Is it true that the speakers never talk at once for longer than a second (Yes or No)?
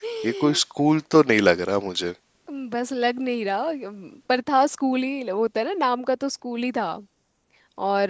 Yes